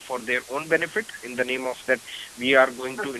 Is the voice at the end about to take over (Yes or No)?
No